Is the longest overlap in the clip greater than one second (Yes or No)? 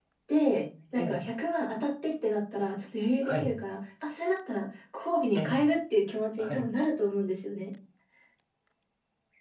No